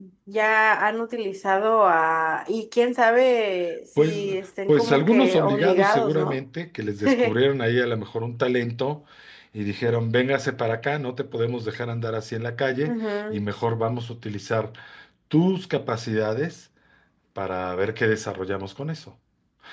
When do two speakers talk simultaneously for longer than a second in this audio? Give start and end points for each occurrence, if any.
4.7-6.4

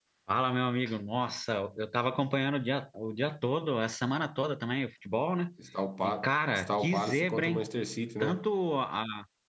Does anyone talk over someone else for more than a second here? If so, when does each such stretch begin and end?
6.0-7.7

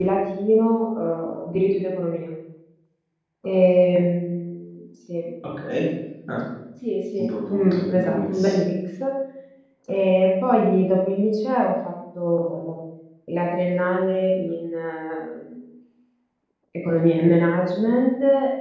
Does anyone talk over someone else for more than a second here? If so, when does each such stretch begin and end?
7.2-8.6

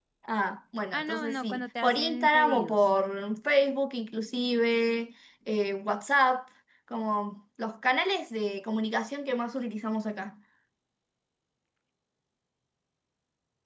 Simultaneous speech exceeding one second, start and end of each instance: 0.9-2.7

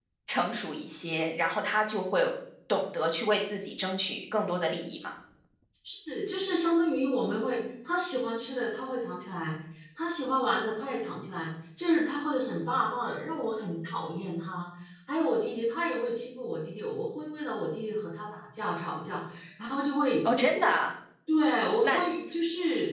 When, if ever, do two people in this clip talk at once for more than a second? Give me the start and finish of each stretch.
none

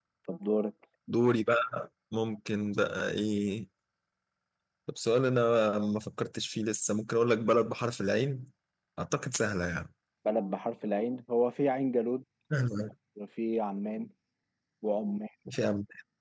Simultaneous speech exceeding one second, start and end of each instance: none

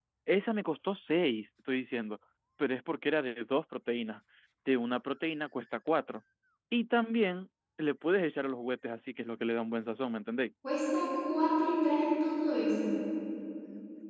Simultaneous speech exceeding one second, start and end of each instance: none

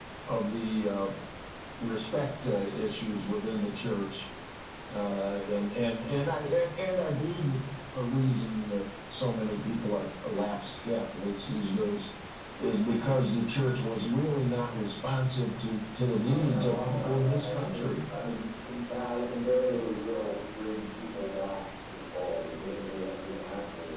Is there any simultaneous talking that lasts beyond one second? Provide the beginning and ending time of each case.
16.2-17.9

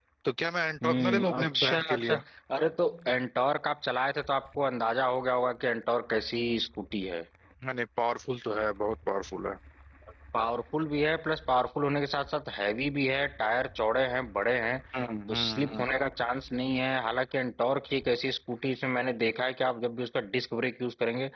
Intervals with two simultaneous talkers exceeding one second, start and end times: 0.8-2.1

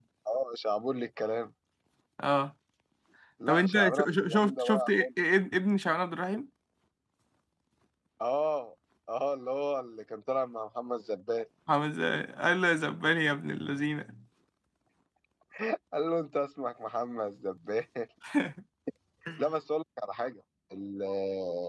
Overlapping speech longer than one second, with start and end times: 3.5-5.1

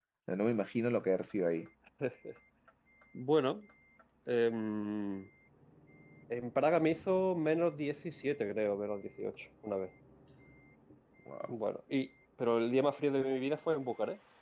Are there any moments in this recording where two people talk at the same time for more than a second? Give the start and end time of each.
none

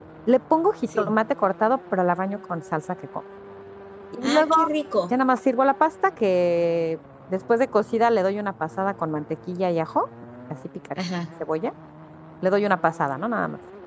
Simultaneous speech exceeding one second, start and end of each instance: none

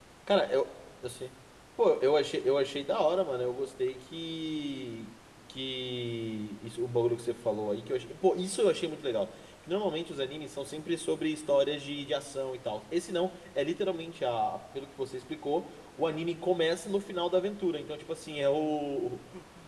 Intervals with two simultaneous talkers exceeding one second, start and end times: none

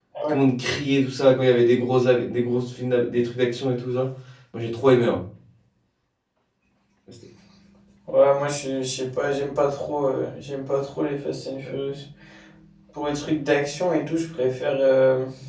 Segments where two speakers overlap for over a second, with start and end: none

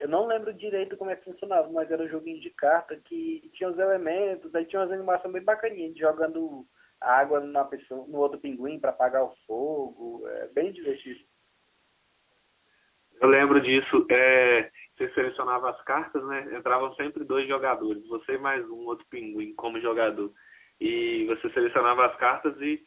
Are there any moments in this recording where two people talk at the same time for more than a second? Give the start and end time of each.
none

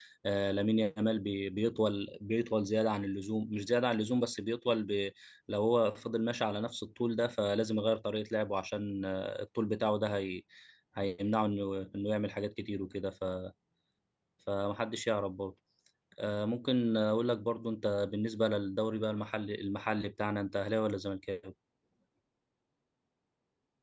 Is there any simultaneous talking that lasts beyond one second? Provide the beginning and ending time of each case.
none

